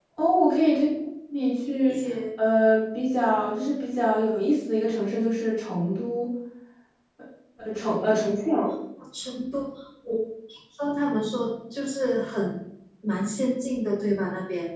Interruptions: none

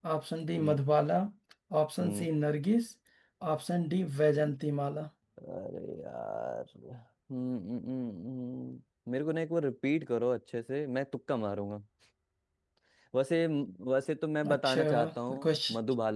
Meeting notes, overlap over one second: present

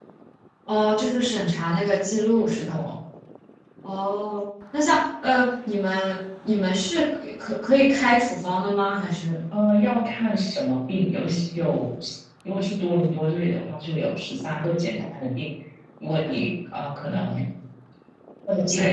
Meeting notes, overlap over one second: none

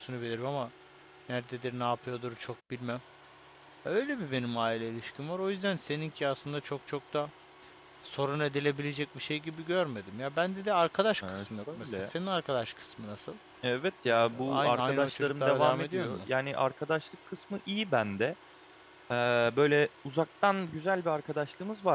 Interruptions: present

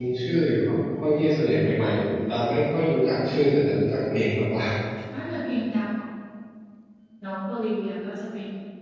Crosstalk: none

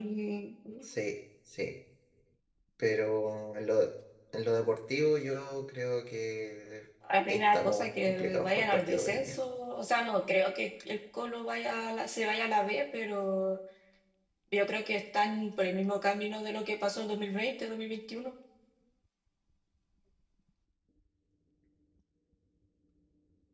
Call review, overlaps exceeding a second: present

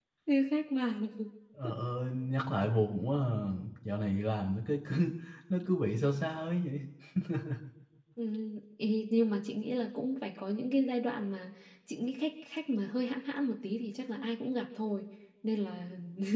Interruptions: none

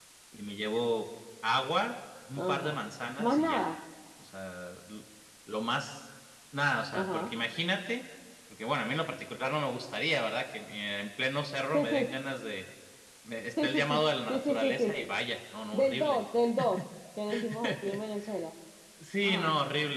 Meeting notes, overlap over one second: present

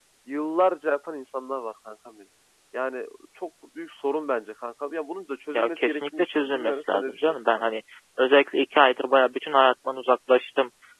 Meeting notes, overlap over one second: present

